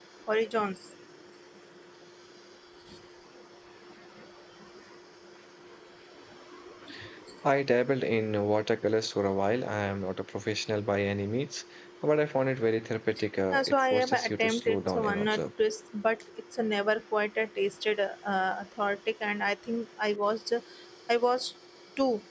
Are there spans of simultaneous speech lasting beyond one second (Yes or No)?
Yes